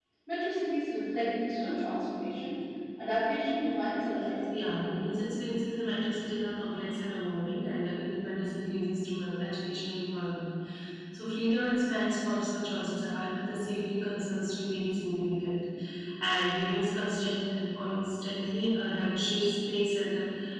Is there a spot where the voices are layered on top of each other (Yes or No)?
No